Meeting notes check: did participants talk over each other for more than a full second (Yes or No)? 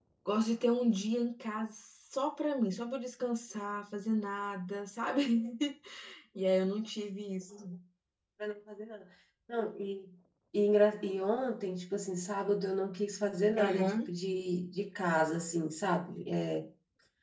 No